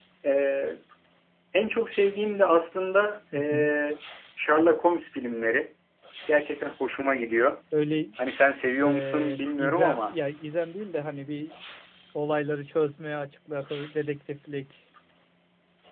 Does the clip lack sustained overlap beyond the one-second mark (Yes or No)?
No